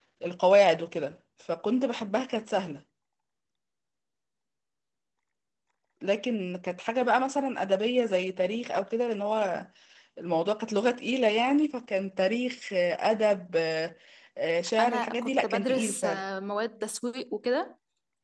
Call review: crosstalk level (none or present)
present